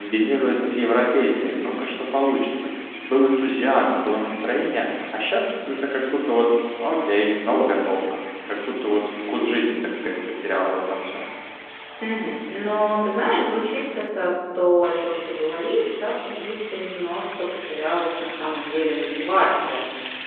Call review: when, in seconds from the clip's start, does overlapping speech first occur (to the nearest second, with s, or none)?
none